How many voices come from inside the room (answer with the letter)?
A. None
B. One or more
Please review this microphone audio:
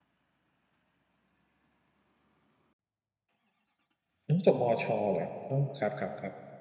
B